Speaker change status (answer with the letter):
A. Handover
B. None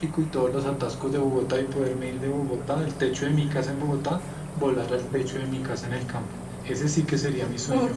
A